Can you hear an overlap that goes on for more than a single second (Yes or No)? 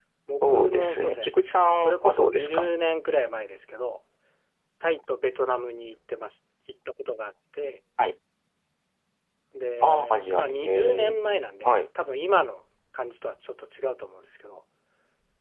Yes